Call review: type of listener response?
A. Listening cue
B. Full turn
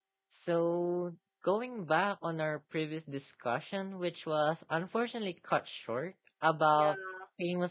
A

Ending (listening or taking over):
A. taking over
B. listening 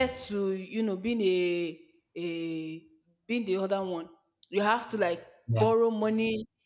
B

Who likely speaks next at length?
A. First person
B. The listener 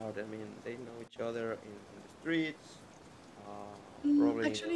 B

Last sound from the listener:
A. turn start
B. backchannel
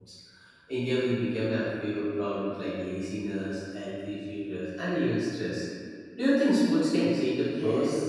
A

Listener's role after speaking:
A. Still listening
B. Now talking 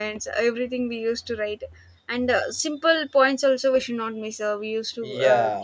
B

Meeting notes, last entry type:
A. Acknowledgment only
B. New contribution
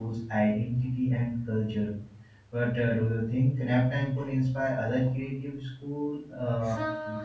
B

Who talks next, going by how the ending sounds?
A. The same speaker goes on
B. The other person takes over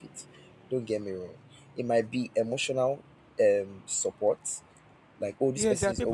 B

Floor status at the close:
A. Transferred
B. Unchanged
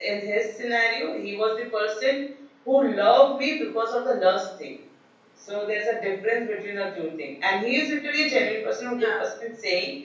B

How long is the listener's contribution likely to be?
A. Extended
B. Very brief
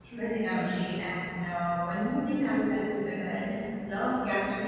B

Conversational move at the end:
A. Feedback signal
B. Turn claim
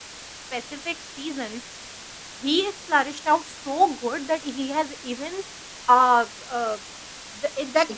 A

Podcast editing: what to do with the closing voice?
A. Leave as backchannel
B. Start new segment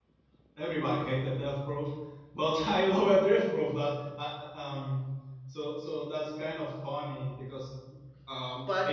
A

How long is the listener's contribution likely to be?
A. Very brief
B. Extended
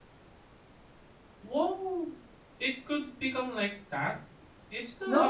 B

